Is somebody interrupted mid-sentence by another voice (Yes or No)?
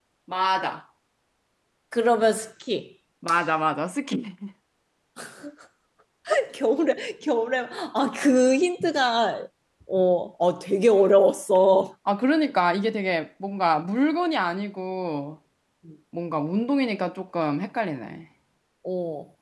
No